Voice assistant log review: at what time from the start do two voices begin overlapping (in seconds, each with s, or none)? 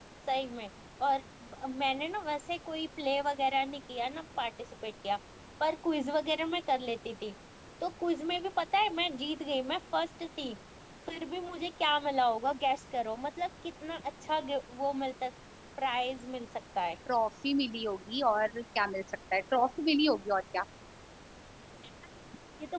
none